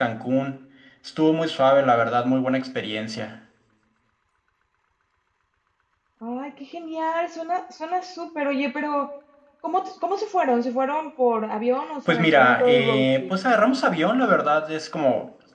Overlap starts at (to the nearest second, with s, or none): 12 s